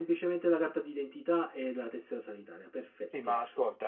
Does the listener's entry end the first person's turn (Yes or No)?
Yes